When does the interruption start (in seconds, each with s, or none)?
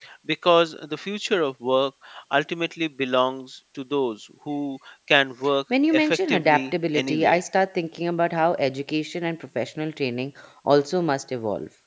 5.7 s